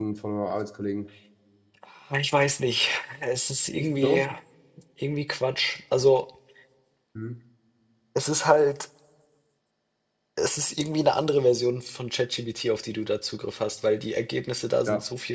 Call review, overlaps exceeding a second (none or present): none